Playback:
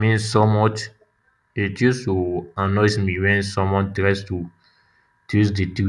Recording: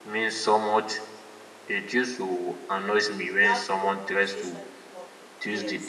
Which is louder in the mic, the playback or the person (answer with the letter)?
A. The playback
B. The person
A